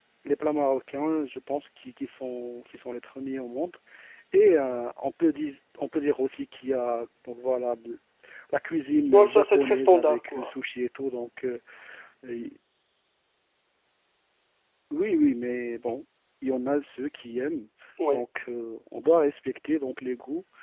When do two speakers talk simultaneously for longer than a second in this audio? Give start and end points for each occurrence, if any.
9.1-10.5

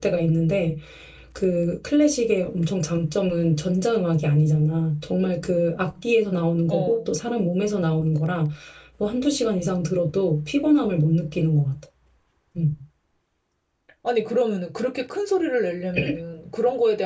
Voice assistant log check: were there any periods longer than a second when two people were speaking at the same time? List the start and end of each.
none

